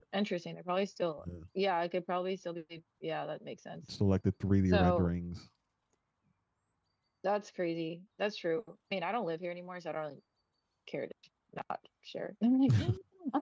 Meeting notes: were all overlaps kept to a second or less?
Yes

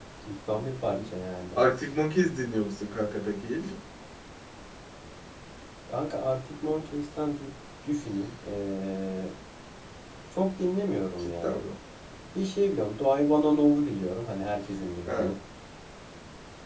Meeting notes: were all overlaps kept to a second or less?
Yes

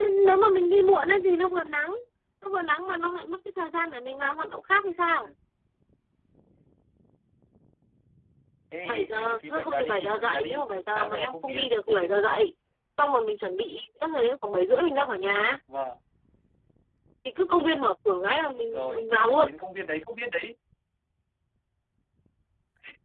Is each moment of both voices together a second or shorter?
No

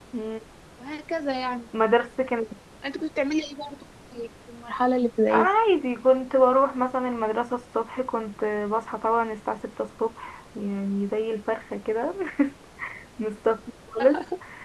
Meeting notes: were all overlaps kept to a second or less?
Yes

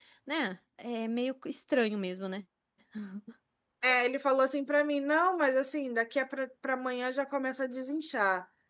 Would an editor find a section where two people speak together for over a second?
No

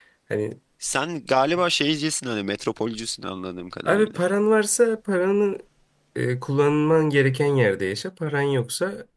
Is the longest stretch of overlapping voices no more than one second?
Yes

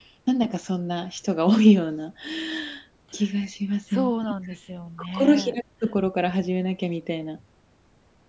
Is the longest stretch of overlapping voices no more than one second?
Yes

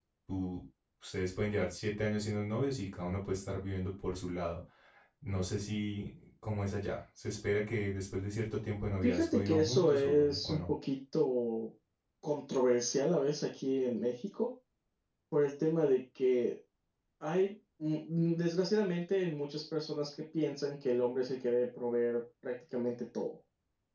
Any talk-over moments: Yes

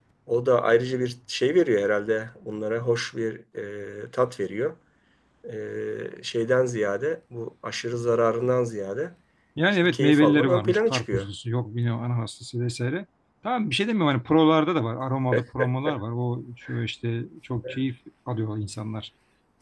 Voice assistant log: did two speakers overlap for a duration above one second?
Yes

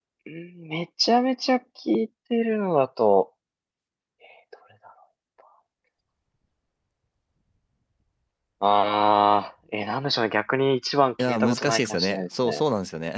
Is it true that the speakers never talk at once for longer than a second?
No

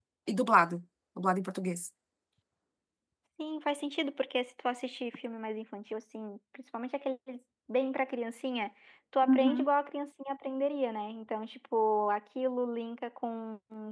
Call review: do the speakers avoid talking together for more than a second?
Yes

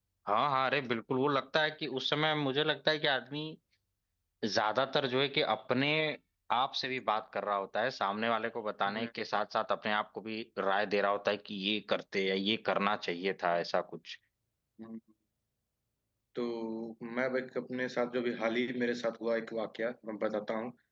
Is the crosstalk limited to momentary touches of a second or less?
Yes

